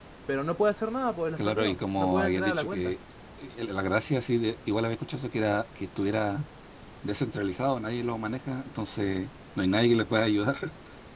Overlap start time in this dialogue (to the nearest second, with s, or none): 1 s